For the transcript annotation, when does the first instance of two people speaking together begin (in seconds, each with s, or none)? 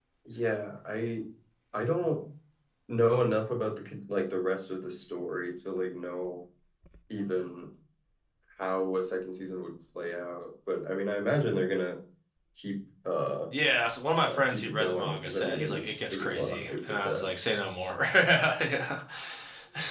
14.2 s